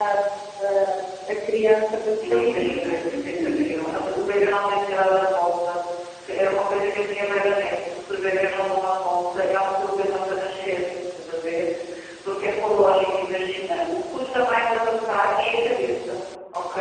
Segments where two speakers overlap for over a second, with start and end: 2.3-3.7

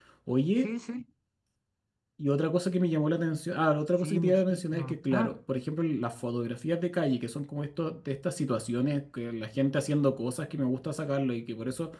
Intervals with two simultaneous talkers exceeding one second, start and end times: 4.0-5.3

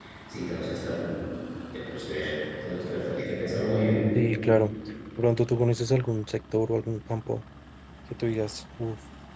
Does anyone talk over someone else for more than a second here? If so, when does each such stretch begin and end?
none

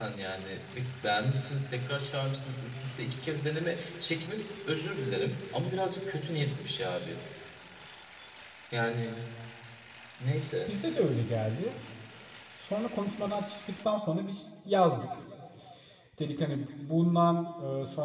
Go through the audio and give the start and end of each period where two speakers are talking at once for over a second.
none

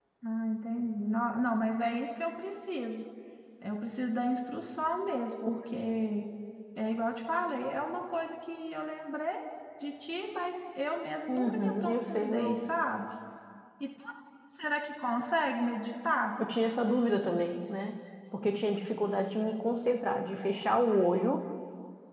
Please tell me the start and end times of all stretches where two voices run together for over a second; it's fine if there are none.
11.3-12.6

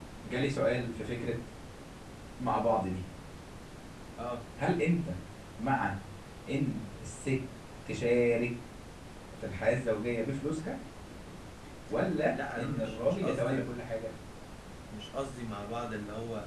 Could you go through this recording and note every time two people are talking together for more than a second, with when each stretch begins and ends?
12.3-13.8

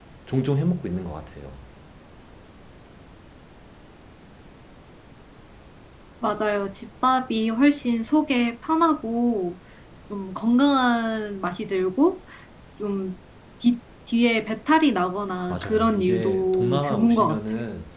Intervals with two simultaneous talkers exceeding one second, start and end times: 15.5-17.4

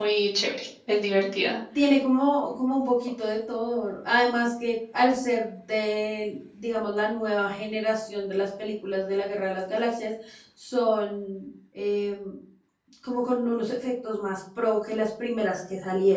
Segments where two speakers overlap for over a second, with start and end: none

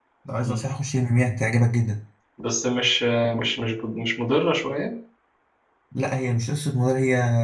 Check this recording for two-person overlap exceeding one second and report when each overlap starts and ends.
none

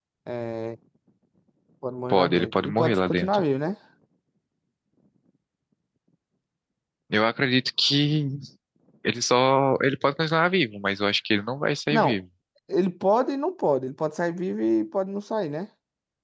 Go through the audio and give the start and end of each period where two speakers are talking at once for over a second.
2.1-3.4

